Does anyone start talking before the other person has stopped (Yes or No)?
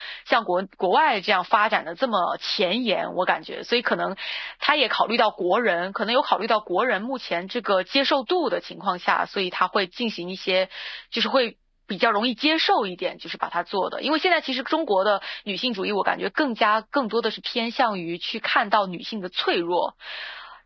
No